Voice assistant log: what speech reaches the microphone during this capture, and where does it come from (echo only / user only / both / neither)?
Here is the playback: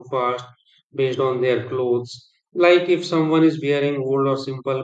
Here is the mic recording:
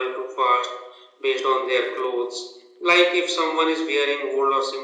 echo only